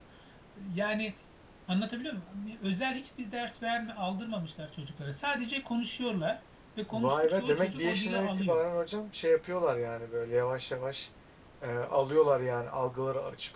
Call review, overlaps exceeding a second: present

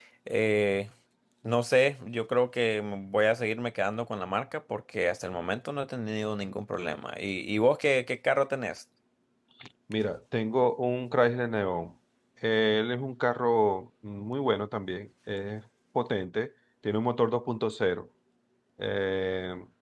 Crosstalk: none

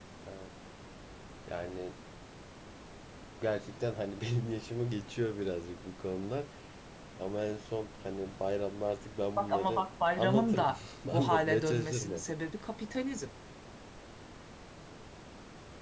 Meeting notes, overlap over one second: present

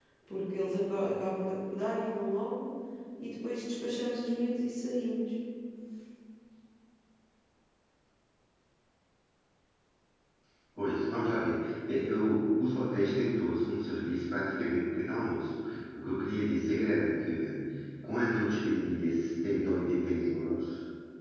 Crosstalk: none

